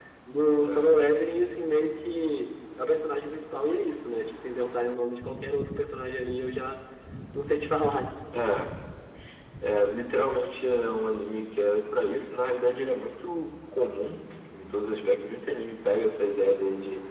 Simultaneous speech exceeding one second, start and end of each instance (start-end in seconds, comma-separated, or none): none